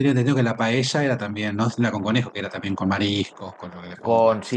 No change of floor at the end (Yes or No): No